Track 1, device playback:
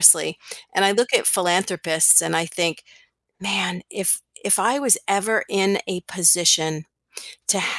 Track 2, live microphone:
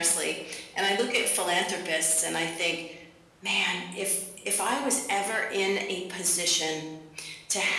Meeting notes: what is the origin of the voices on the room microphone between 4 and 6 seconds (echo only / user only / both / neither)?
echo only